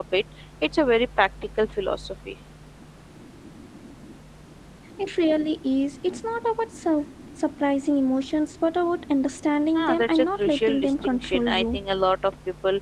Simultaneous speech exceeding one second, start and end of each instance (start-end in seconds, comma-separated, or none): 9.8-11.8